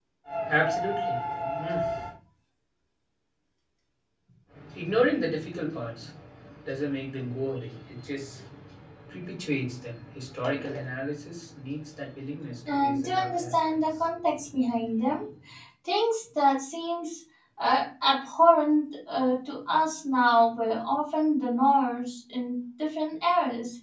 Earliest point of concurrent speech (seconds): 12.7 s

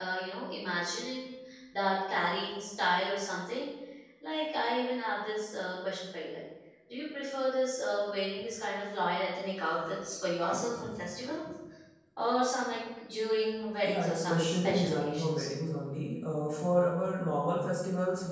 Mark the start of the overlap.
13.8 s

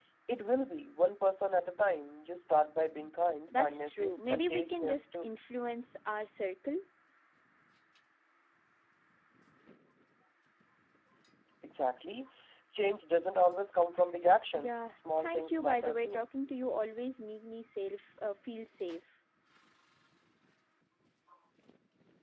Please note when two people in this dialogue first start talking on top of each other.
3.5 s

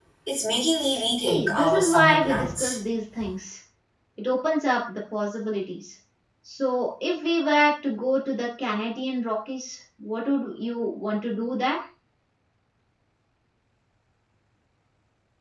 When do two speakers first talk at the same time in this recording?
1.3 s

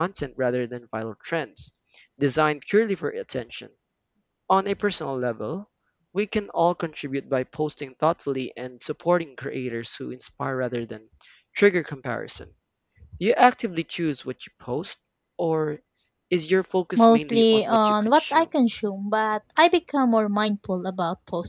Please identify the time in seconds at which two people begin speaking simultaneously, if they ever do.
17.0 s

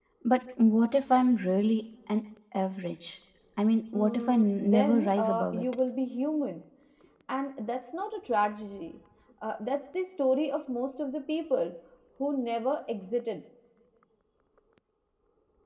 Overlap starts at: 3.9 s

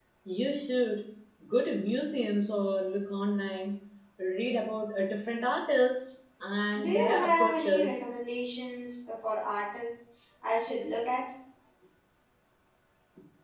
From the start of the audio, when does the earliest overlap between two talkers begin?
6.8 s

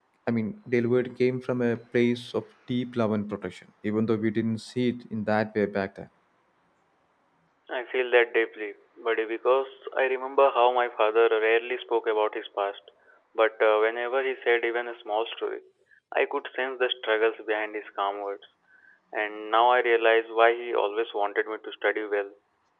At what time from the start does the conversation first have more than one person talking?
none

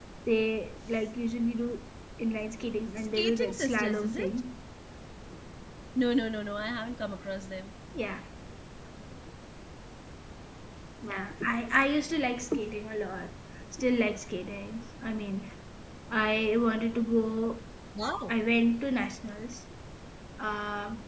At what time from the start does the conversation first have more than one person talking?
3.0 s

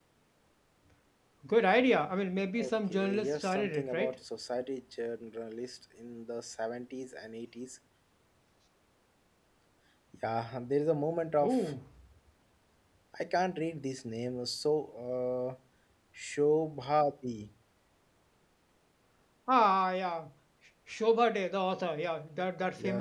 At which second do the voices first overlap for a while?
2.6 s

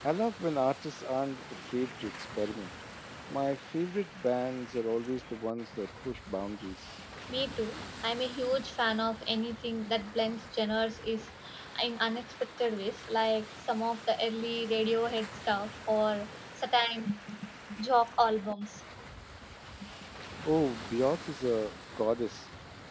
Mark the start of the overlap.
none

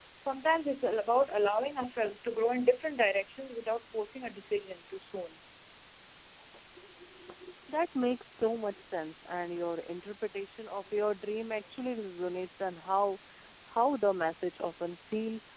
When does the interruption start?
none

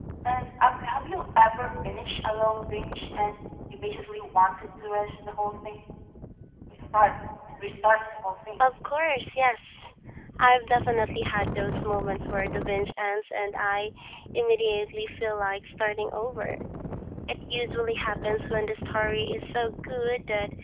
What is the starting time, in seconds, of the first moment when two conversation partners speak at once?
none

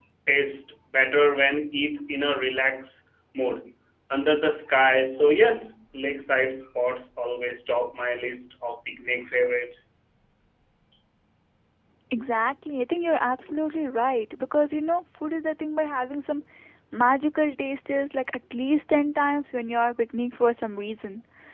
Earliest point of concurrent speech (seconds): none

